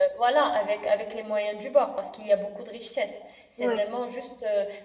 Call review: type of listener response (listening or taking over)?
listening